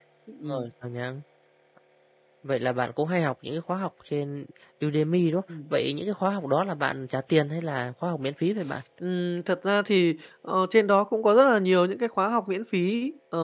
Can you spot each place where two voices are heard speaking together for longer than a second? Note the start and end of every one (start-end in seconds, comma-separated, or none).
none